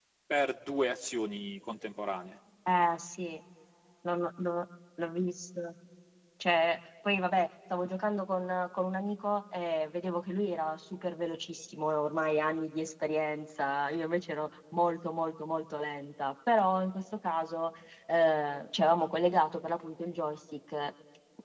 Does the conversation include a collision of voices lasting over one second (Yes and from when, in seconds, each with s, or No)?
No